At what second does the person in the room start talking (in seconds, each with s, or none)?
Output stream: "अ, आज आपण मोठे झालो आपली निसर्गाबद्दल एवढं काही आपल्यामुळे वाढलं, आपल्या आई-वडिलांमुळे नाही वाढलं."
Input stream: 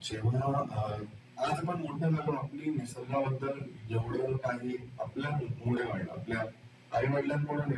none